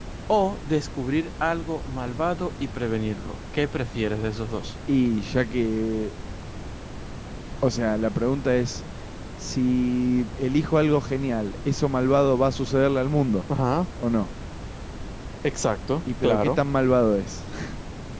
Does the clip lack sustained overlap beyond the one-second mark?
Yes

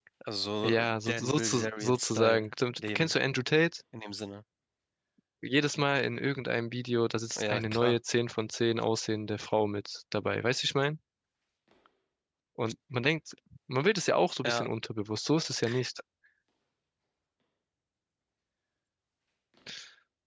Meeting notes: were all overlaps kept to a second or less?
No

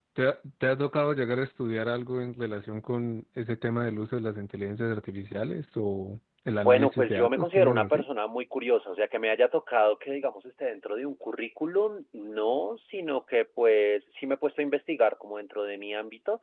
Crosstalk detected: Yes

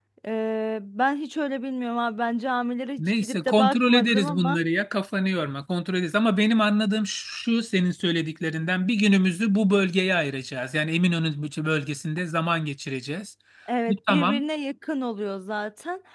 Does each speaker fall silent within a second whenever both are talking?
No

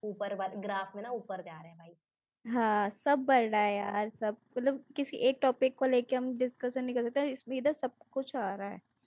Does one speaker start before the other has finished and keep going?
No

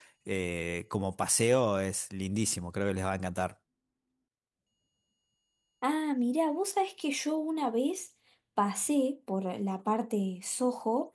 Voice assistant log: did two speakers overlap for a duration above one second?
No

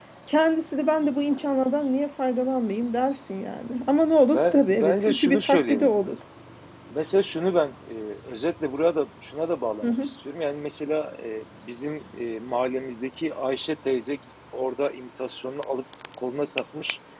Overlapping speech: Yes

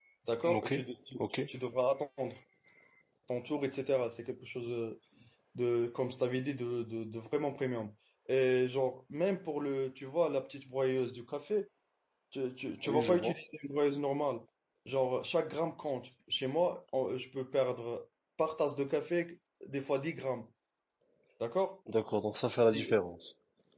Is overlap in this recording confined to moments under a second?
Yes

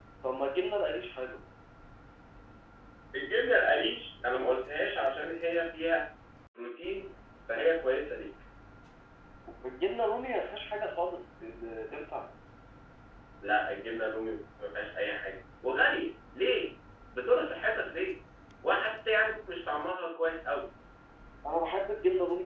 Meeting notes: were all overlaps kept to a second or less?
Yes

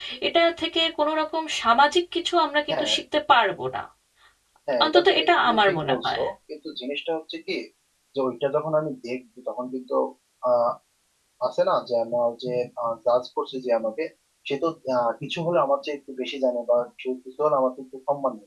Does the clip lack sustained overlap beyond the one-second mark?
No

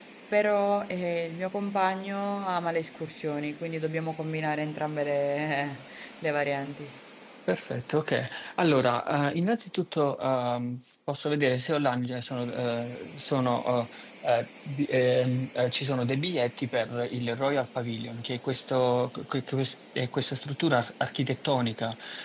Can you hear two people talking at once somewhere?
No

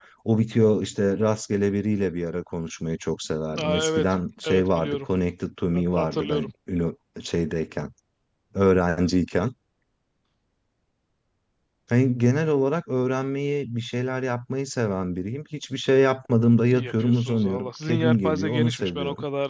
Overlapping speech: Yes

